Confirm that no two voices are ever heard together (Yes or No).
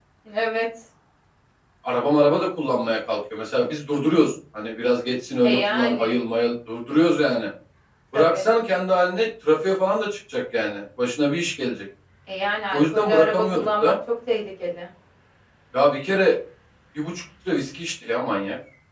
No